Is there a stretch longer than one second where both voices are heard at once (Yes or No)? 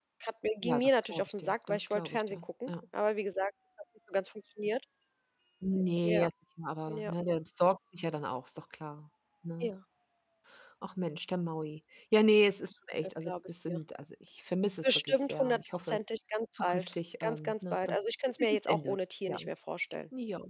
Yes